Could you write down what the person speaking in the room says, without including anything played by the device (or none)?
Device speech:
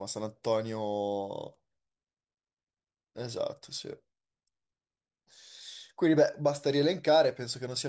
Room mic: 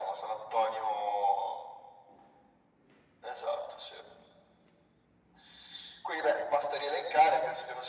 none